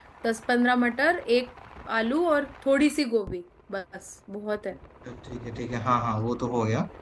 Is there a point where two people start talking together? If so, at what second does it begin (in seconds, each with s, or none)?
none